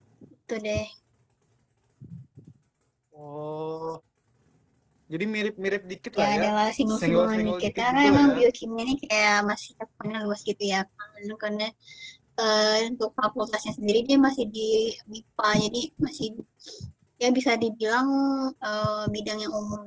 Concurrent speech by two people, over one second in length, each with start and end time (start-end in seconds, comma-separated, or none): 7.0-8.3